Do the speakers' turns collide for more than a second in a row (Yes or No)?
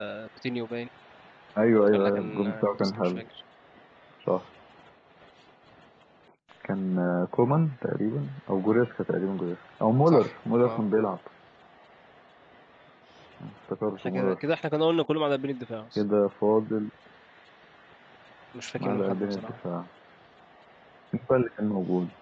Yes